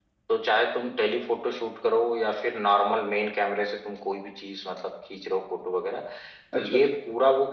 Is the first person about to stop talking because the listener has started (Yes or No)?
No